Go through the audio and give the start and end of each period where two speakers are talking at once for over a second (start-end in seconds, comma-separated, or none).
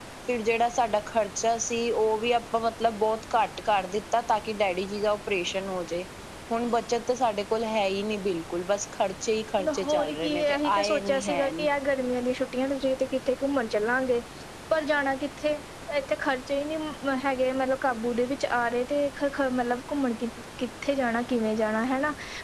9.8-11.7